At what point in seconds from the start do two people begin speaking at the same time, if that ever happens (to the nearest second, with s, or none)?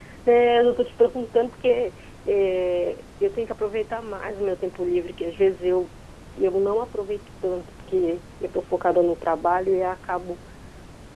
none